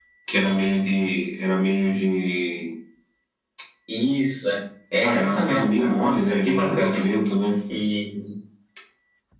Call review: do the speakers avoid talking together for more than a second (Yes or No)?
No